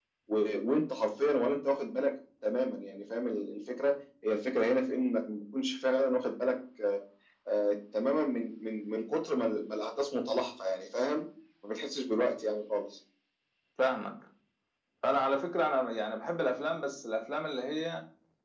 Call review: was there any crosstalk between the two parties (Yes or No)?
No